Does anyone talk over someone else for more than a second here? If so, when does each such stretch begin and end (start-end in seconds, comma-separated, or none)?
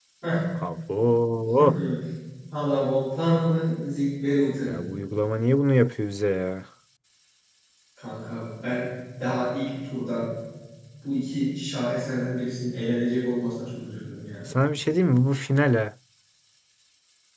none